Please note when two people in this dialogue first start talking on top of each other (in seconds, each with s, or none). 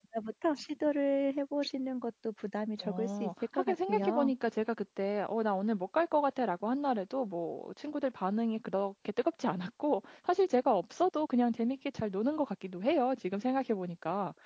2.8 s